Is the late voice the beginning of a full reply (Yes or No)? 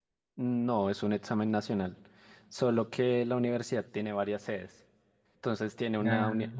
No